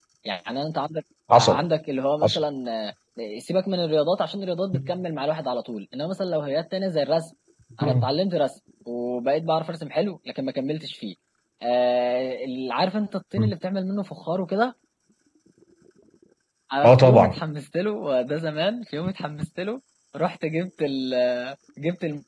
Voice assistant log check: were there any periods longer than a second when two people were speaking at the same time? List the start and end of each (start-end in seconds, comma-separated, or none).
none